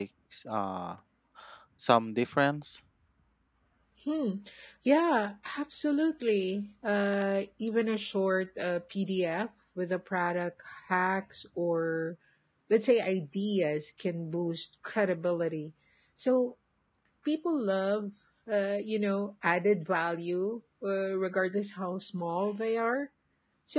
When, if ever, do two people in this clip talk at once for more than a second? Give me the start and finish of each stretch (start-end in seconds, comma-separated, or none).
none